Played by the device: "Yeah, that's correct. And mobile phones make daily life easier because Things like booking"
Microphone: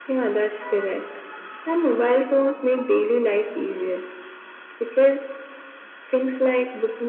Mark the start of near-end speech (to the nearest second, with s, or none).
none